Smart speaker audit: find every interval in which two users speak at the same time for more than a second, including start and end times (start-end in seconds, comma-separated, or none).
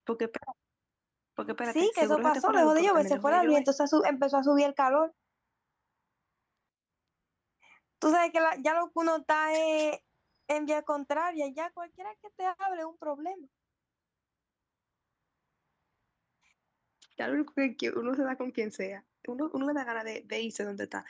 1.6-3.6